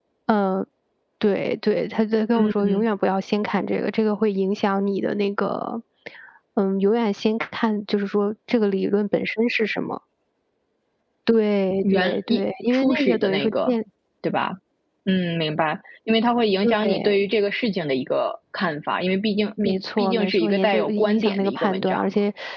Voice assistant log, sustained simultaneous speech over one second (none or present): present